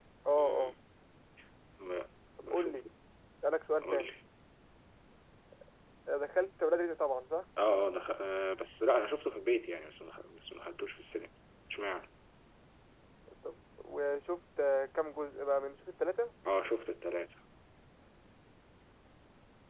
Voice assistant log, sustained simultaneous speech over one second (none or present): none